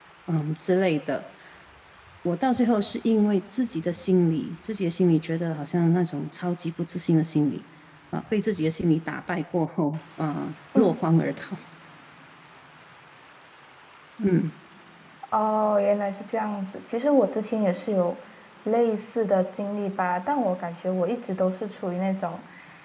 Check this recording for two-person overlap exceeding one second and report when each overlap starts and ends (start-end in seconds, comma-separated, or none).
none